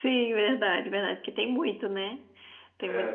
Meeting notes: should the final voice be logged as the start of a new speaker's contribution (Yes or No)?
No